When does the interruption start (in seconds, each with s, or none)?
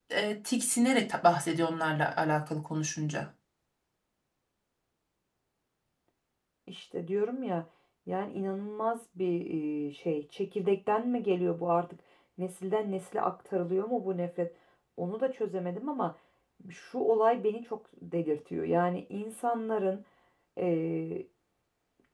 none